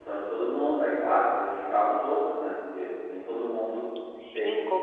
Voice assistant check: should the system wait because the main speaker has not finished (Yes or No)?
No